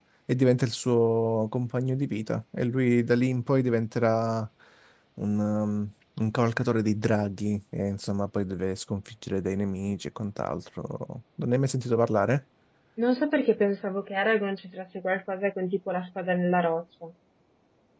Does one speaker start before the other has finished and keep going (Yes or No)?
No